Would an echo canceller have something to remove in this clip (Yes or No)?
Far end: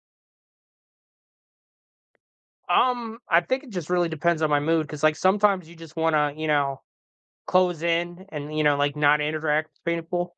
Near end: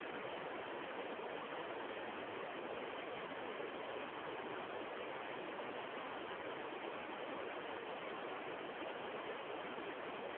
No